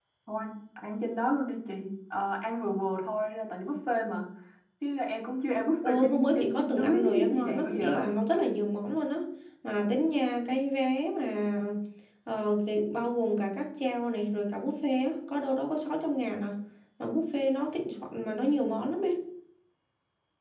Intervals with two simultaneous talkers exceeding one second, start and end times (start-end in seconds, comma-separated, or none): 5.8-8.0